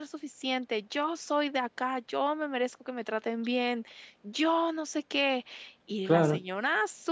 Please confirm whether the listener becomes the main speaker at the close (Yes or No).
No